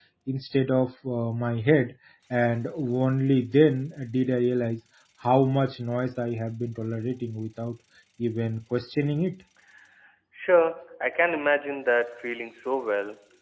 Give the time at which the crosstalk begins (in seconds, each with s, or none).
none